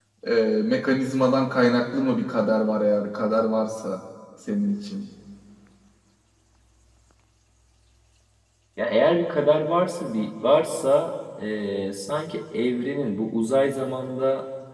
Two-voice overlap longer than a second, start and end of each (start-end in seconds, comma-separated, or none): none